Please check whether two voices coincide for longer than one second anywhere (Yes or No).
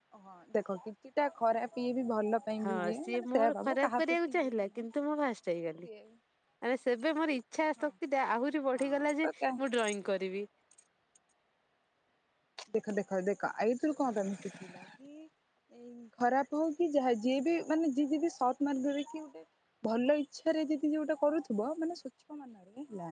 Yes